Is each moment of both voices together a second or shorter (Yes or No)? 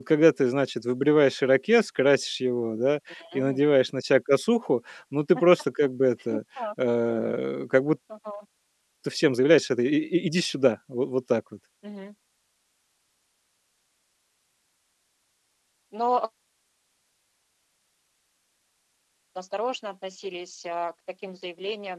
Yes